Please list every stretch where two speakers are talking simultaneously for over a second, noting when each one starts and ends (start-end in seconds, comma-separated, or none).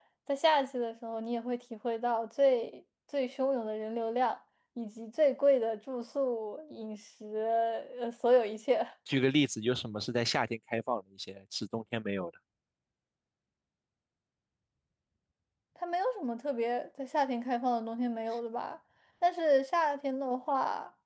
none